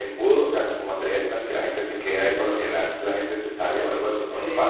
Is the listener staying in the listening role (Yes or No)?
No